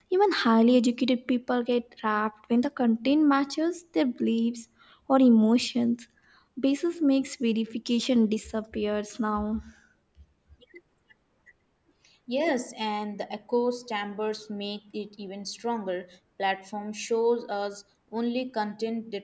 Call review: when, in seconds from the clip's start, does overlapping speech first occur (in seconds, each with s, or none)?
none